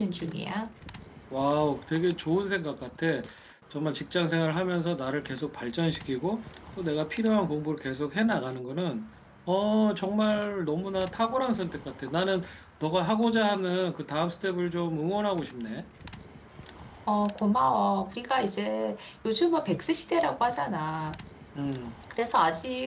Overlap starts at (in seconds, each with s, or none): none